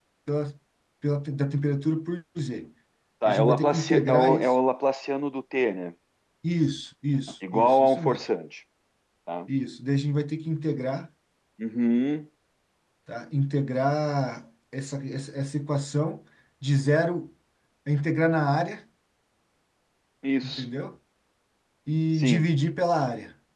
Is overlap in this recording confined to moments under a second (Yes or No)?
No